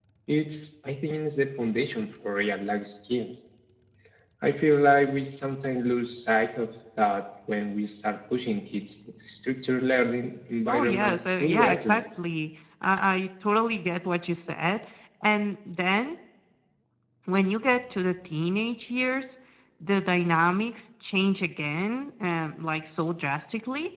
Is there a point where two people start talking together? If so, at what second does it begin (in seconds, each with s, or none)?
10.7 s